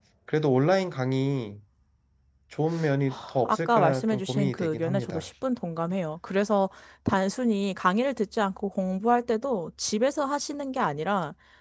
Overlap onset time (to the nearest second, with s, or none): 3 s